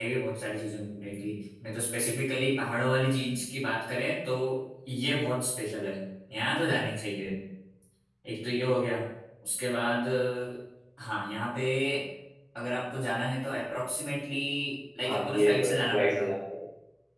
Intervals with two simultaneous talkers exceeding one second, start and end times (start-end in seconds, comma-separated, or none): 15.0-16.3